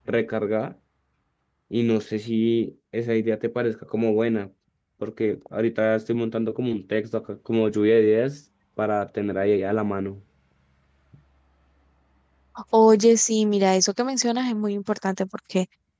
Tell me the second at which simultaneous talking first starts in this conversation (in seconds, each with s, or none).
none